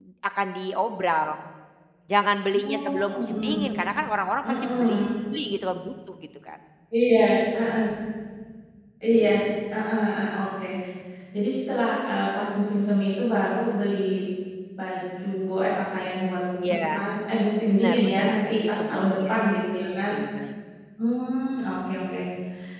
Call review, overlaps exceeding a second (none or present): present